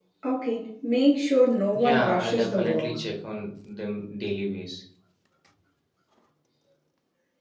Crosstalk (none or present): present